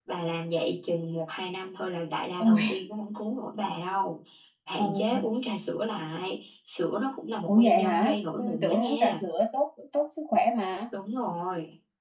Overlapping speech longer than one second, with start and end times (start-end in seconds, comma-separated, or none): 7.5-9.2